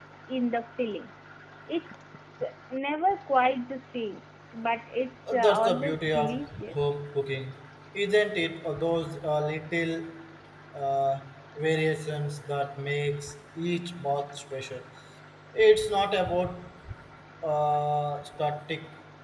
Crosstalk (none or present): present